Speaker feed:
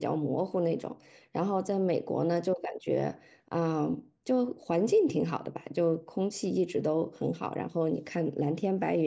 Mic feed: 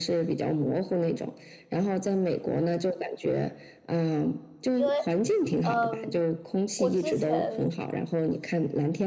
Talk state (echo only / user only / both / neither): both